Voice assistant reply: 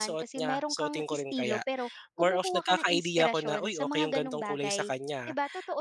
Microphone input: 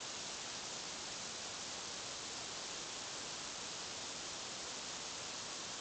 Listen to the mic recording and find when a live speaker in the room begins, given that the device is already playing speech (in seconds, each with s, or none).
none